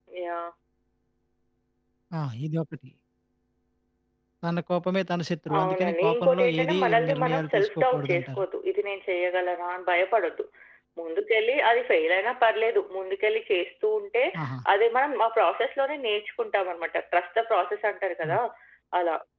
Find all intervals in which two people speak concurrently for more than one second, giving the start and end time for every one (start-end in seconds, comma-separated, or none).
5.6-8.4